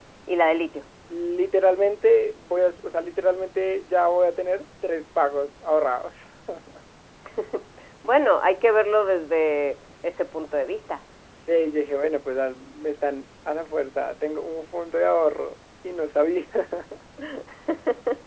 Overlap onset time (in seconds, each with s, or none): none